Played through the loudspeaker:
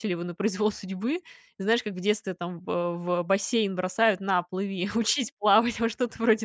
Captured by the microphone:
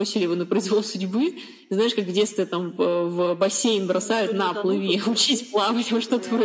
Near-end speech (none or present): present